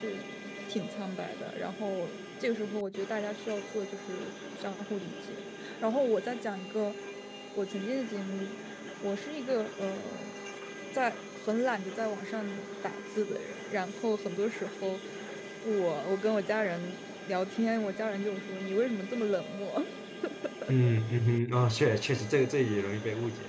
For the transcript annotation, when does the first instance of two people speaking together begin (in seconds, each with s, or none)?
none